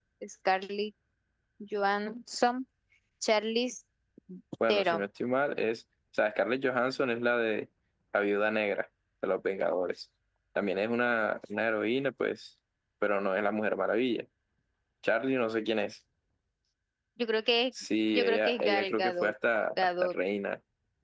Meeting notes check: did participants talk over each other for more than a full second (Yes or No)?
Yes